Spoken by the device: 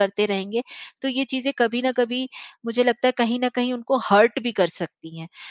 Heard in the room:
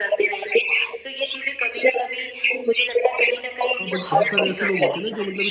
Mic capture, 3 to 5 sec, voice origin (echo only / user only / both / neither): both